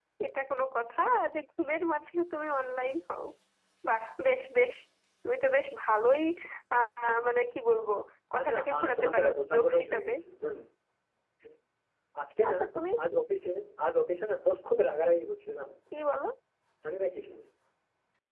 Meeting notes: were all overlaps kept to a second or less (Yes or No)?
No